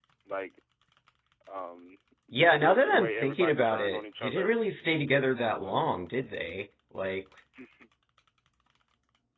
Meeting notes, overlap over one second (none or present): present